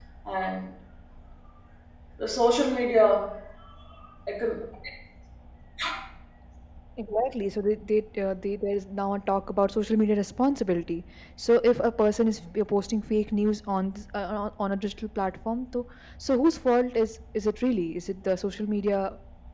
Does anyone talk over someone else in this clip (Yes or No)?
No